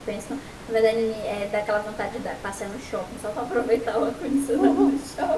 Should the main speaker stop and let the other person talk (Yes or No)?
Yes